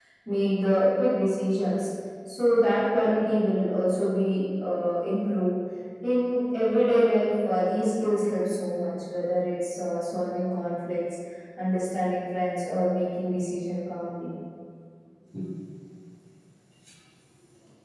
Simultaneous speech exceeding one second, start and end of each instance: none

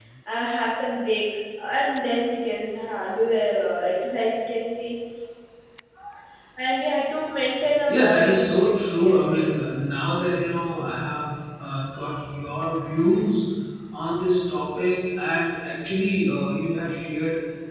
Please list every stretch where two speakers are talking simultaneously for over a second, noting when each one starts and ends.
7.9-9.5

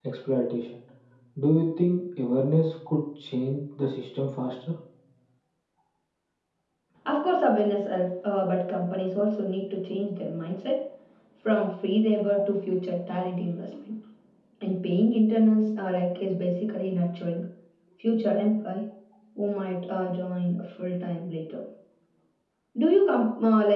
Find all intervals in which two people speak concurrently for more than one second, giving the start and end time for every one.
none

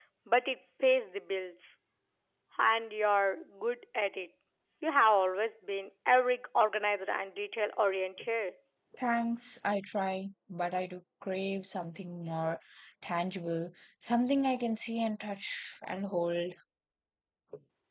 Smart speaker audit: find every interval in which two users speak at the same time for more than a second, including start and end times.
none

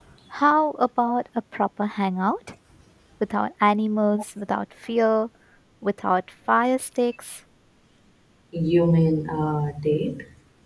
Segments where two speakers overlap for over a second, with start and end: none

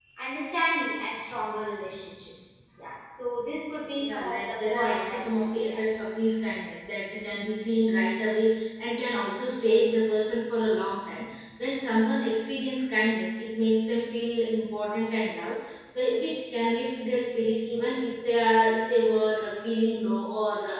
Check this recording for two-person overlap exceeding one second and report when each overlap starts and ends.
4.0-5.8

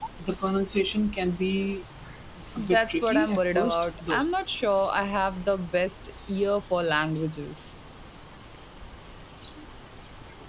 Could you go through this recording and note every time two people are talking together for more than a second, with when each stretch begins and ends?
2.6-4.2

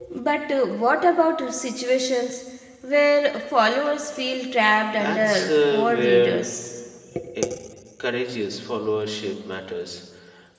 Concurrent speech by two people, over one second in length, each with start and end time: 4.9-6.5

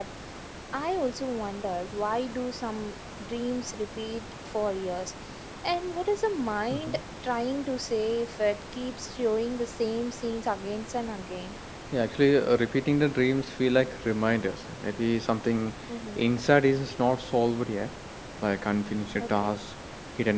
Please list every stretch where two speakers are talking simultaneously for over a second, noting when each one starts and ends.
none

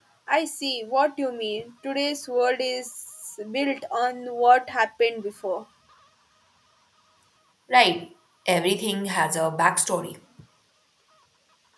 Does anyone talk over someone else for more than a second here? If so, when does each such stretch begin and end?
none

